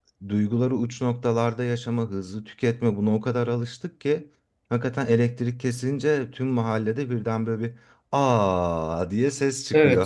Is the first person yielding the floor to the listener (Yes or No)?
Yes